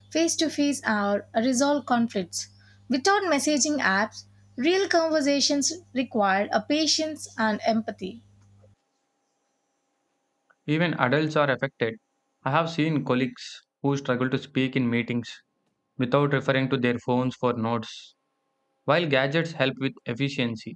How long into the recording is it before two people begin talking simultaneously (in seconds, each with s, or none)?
none